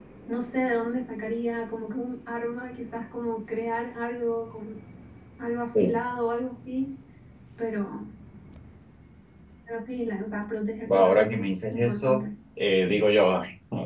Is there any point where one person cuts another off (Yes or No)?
Yes